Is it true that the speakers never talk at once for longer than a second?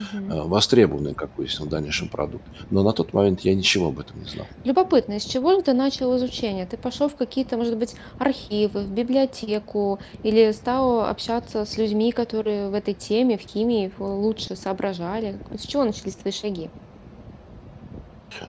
Yes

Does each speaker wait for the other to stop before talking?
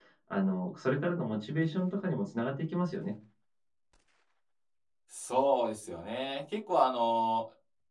Yes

